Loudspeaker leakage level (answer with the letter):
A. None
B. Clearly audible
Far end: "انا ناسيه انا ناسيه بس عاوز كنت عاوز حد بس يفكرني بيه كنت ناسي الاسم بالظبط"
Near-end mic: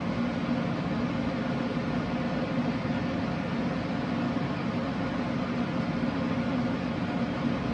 A